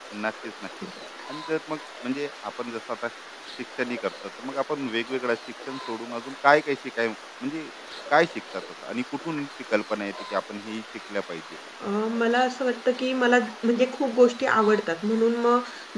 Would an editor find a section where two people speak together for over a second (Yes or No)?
No